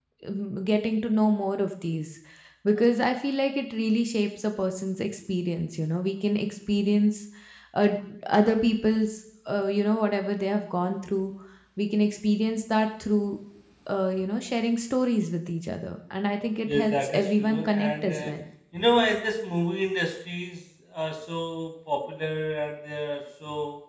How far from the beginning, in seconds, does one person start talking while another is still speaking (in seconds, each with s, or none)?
16.7 s